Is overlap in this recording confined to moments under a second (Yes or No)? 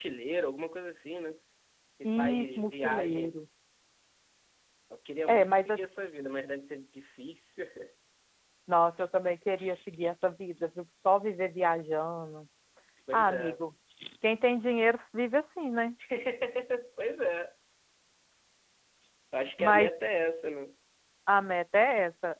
No